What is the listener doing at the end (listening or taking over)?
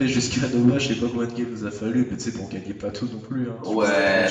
taking over